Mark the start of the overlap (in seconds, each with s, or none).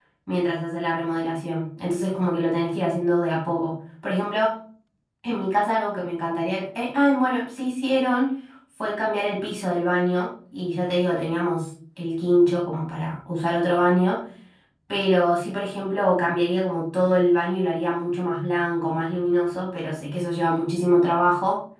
none